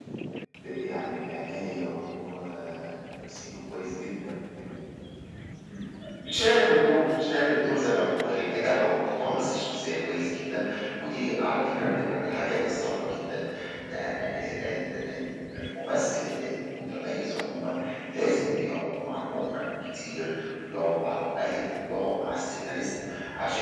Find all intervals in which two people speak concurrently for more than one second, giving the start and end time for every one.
none

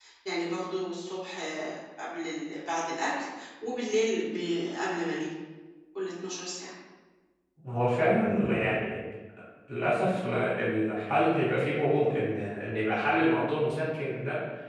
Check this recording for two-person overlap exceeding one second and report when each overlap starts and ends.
none

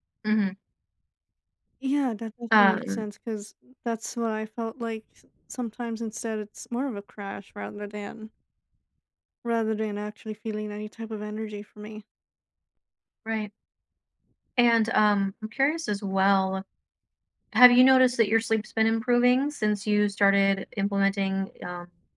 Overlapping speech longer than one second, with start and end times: none

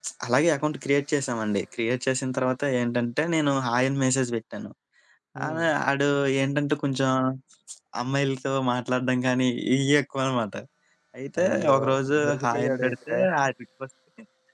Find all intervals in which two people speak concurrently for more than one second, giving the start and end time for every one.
11.4-13.2

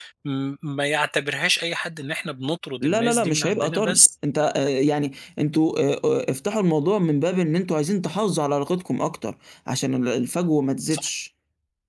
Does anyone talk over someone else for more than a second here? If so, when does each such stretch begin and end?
2.8-4.0

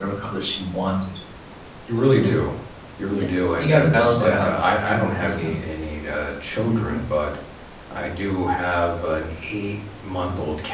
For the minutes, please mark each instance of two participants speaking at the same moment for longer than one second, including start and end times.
3.1-5.5

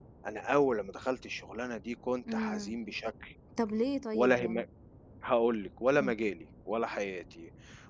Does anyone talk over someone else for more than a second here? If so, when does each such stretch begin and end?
none

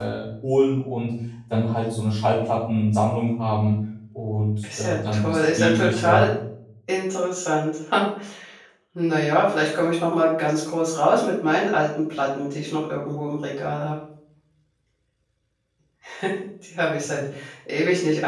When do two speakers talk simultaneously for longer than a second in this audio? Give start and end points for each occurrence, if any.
4.6-6.3

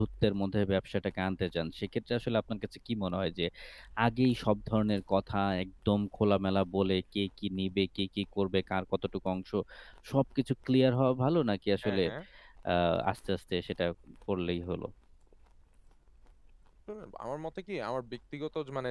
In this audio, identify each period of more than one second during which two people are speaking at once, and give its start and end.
none

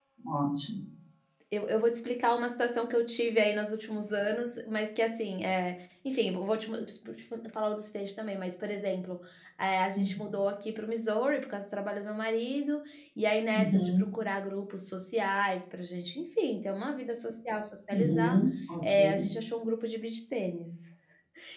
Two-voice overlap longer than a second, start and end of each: none

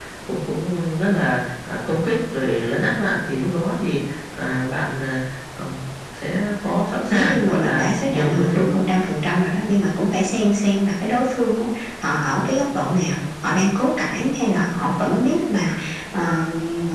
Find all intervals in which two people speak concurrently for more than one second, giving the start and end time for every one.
7.1-8.8

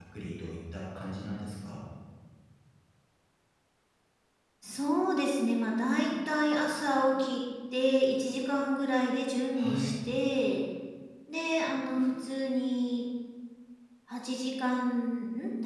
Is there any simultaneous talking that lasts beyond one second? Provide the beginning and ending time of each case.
none

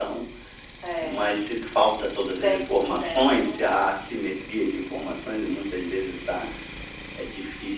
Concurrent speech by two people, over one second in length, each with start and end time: 2.3-3.8

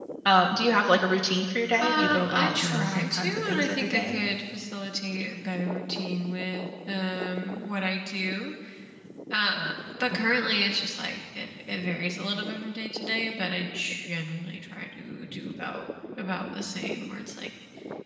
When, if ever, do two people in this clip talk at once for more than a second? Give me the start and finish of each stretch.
1.8-4.2

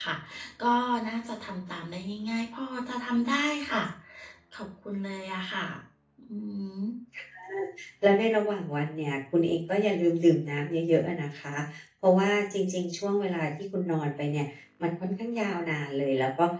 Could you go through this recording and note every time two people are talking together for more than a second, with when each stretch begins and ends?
none

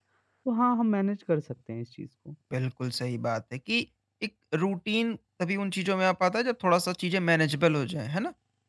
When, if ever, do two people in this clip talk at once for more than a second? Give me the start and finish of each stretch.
none

